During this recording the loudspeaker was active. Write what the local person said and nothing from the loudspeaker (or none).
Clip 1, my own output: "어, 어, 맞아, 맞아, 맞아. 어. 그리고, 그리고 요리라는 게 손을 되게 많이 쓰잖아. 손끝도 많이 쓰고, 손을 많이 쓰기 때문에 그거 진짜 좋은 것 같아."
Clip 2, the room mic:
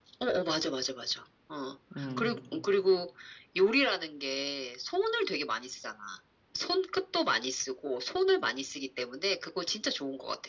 음.